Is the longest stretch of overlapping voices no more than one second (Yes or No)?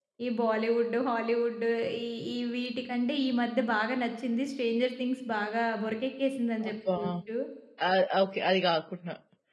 Yes